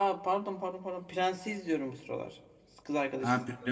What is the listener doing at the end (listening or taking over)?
taking over